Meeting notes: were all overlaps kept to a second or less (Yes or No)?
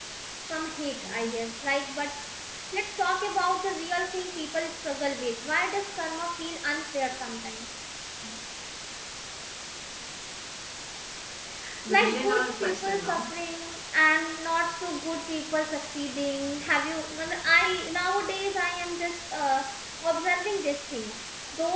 No